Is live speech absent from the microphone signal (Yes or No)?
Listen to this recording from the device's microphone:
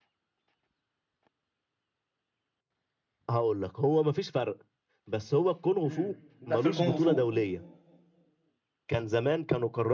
No